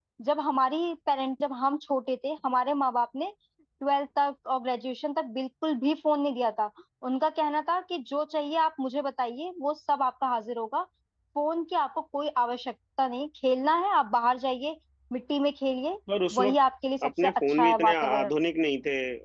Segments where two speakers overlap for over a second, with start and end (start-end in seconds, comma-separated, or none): 17.0-18.3